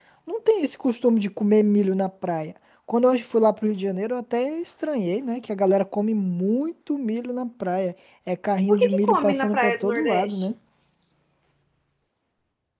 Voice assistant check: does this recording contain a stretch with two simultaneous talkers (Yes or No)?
Yes